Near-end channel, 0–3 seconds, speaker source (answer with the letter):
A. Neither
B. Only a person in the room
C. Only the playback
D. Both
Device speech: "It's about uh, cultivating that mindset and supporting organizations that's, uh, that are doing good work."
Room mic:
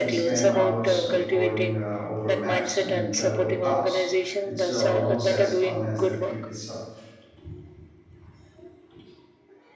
D